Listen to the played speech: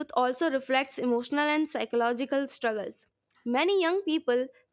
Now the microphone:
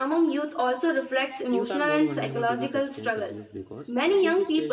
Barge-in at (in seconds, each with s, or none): 1.5 s